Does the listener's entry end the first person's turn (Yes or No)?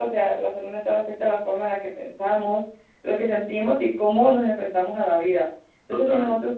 No